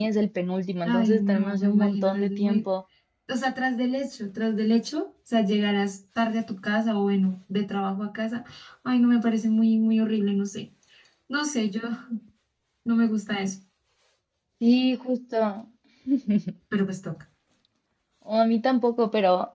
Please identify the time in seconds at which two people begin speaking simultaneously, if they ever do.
0.8 s

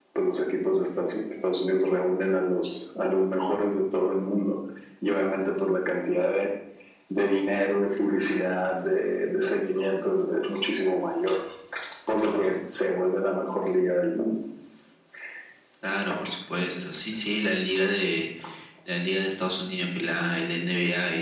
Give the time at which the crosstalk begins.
none

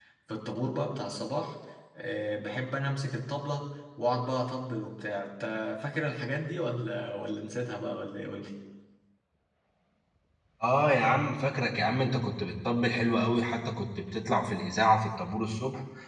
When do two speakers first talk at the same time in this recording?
none

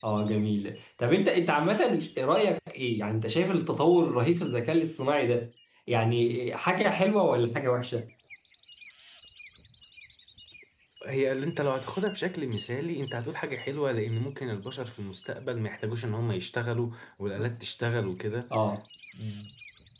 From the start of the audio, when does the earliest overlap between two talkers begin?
none

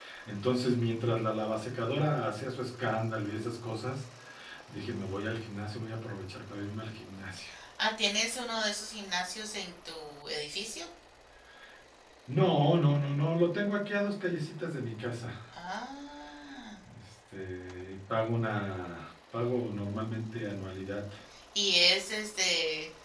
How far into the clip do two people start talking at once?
none

